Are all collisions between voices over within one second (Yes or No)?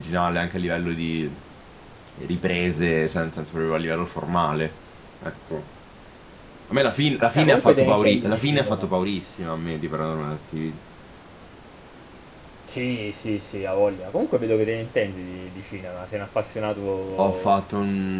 No